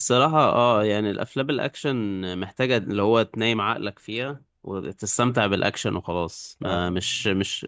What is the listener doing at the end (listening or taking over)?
listening